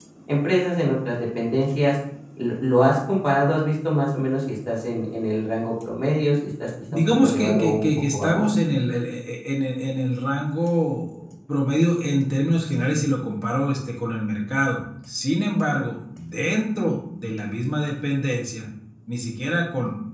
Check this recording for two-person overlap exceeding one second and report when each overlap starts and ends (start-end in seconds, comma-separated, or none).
6.9-8.4